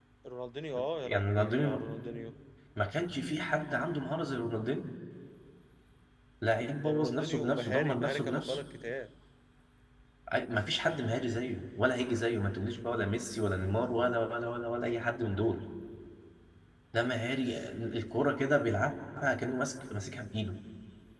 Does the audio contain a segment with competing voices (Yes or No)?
Yes